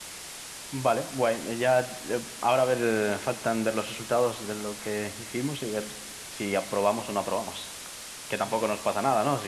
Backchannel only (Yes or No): Yes